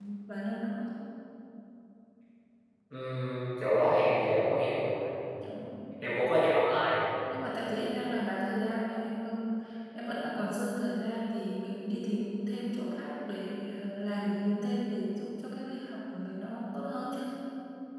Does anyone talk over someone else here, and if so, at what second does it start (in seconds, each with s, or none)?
none